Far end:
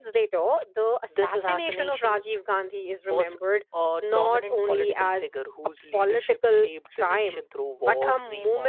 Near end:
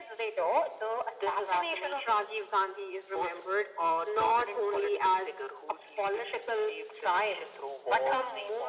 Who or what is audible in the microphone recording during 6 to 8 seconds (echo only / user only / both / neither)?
echo only